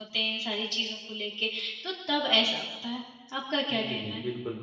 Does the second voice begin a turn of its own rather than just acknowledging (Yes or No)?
Yes